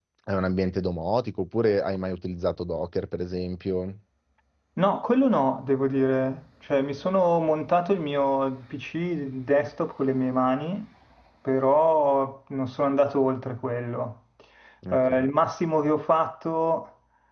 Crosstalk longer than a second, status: none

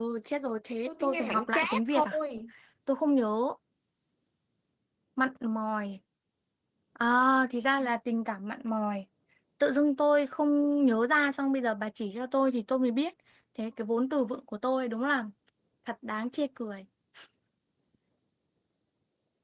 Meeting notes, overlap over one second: present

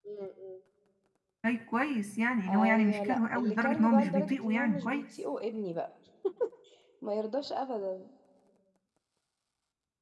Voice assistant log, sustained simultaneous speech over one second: present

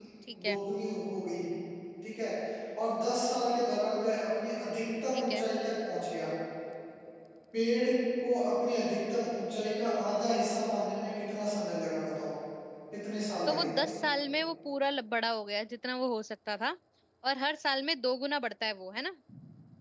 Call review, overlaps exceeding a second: none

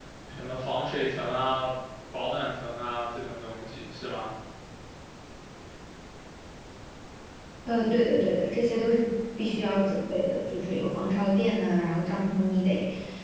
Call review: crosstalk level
none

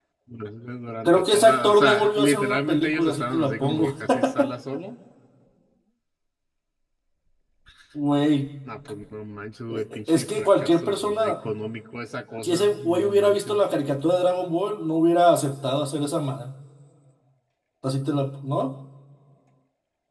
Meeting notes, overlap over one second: present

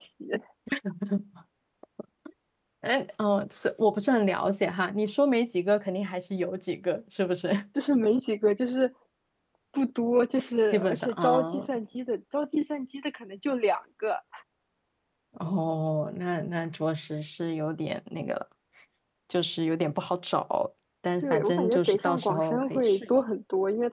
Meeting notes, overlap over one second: present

